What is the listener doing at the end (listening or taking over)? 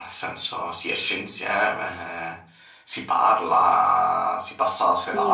taking over